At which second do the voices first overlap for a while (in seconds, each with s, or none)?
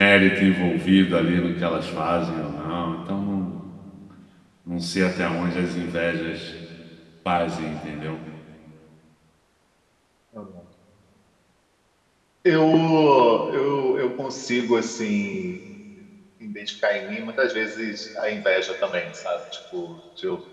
none